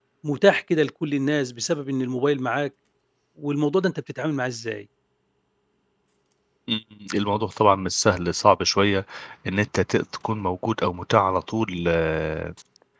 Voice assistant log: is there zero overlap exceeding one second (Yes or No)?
Yes